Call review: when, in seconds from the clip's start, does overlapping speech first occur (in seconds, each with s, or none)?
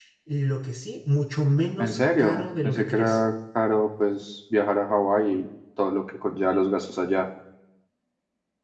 1.8 s